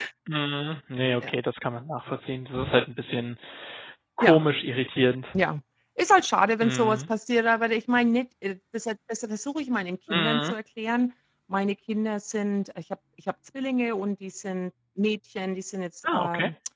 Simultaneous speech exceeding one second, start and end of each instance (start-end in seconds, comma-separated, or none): none